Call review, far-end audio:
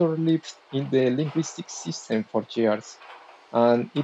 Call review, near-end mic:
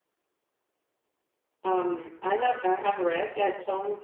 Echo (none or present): none